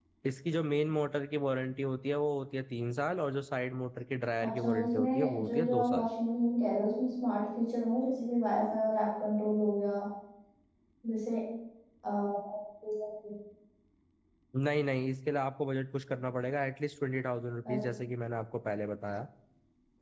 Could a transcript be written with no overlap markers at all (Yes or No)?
No